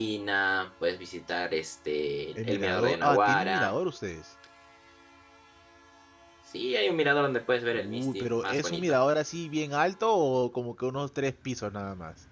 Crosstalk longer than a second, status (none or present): present